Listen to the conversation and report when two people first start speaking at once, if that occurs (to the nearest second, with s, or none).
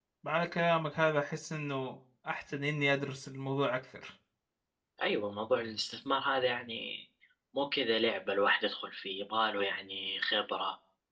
none